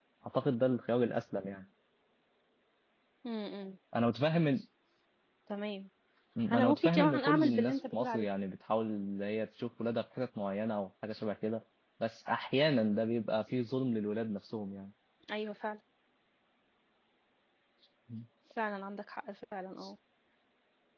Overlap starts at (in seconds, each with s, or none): 6.5 s